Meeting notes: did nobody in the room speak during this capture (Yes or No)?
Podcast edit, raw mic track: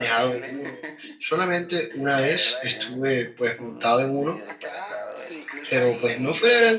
No